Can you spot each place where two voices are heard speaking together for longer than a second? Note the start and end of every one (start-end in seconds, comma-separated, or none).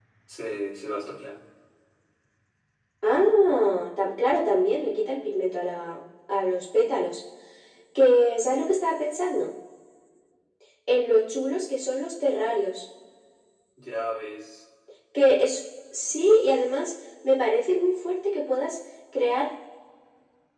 none